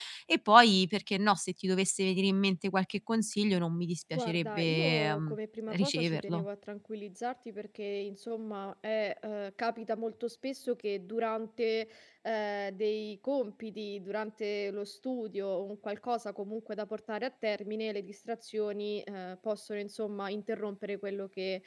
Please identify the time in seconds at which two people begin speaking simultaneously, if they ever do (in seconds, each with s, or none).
4.1 s